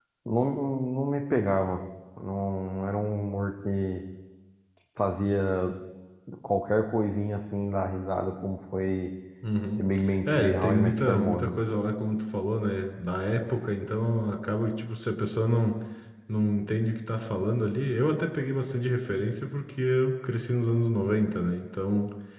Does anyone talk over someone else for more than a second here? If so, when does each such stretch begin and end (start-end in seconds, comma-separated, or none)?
10.3-11.5